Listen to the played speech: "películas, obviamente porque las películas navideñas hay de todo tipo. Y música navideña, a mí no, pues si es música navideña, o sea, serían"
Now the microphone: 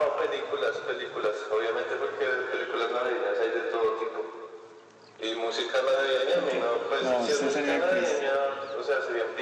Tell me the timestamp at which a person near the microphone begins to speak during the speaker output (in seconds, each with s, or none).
6.3 s